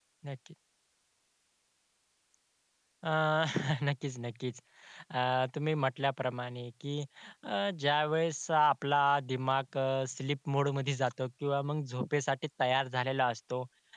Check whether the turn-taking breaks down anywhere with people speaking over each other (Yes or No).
No